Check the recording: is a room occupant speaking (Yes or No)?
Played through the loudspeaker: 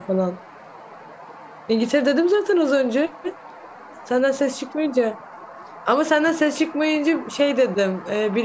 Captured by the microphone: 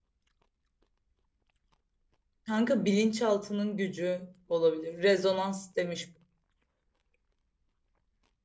Yes